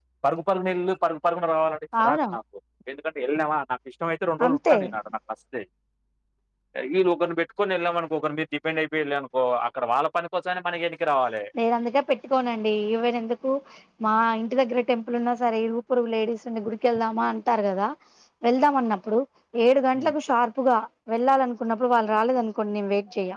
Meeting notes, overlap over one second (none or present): none